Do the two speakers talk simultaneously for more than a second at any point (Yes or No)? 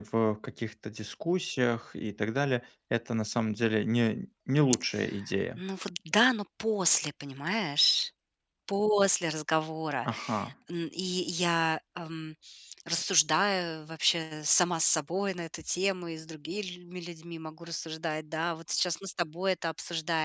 No